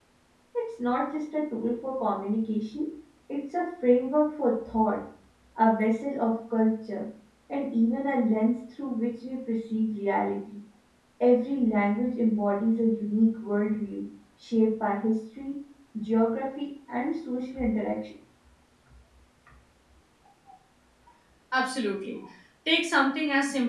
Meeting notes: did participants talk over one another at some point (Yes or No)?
No